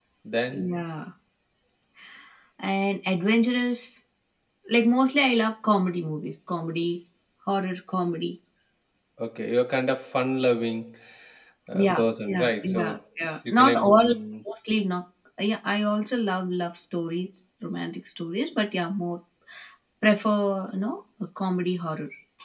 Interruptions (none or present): present